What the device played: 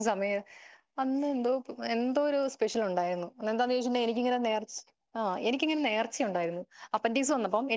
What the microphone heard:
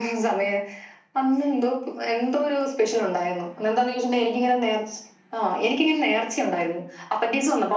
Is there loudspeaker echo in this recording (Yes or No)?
Yes